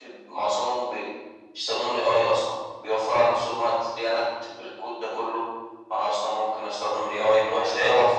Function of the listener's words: taking over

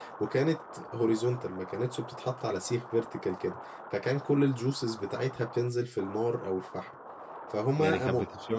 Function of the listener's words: taking over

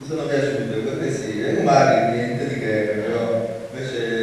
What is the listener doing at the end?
listening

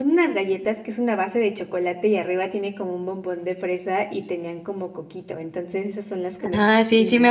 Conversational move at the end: taking over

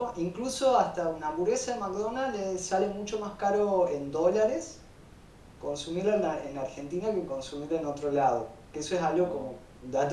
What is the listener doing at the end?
listening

